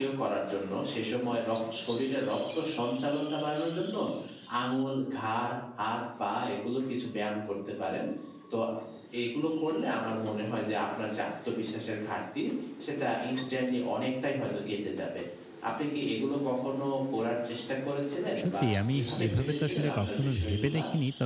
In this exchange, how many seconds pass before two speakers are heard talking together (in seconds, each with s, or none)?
18.4 s